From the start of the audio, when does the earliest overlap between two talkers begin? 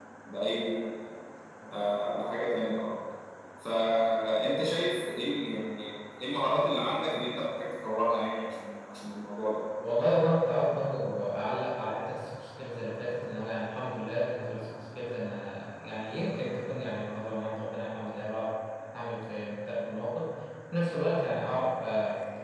none

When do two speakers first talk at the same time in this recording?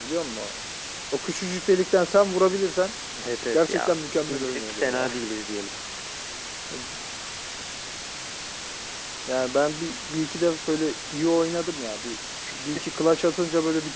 3.5 s

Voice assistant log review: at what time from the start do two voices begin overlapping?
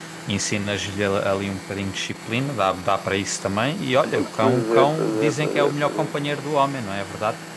4.1 s

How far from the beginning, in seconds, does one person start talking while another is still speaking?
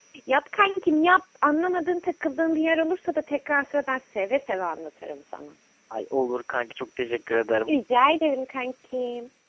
none

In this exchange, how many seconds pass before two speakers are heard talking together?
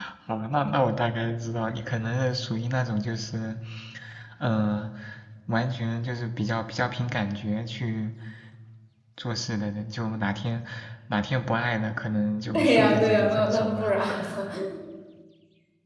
12.5 s

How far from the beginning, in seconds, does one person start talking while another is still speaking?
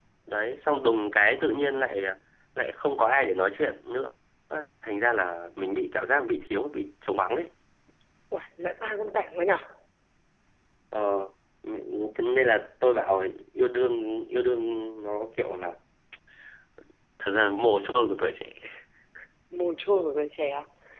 none

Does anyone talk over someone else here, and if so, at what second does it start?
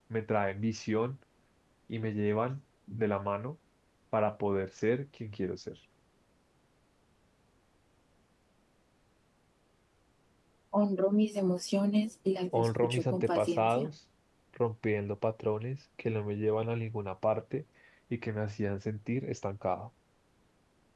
12.5 s

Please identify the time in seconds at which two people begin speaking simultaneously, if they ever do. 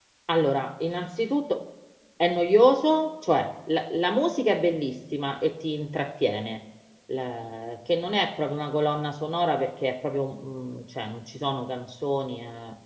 none

